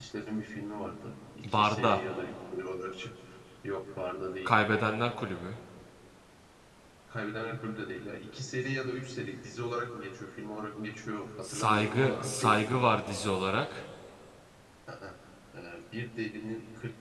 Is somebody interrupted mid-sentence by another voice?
Yes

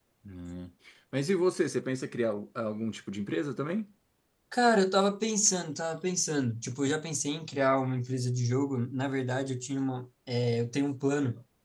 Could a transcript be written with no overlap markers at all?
Yes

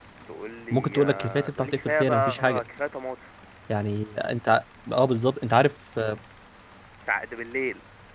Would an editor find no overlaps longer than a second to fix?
No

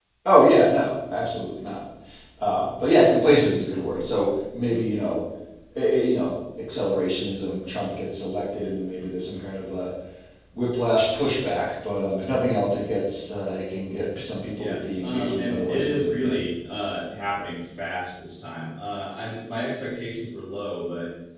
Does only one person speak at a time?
No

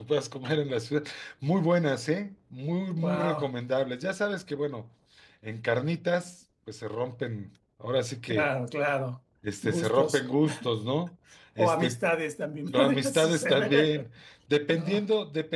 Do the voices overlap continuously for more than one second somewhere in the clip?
Yes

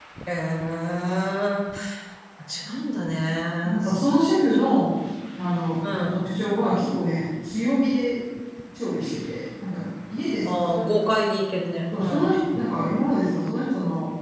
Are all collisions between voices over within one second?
Yes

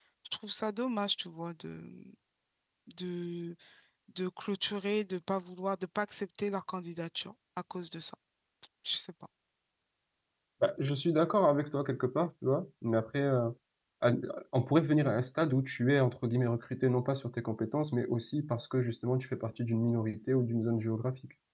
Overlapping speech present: No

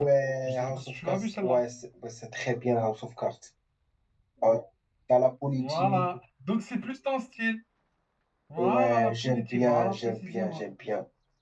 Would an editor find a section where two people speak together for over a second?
Yes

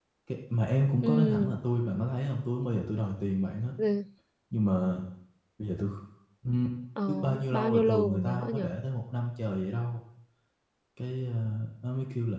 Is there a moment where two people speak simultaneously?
Yes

